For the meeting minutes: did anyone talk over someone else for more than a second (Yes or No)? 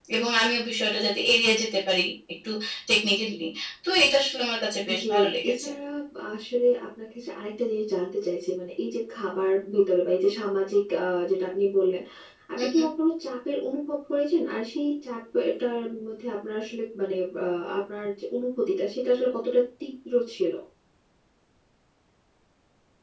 No